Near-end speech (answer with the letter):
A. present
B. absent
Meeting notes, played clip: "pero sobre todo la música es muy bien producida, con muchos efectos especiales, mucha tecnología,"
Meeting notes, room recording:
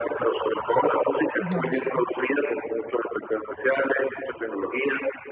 A